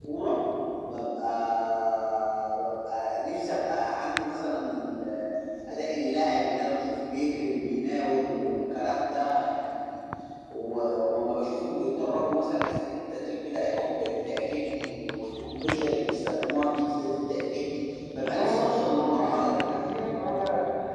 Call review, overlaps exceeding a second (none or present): present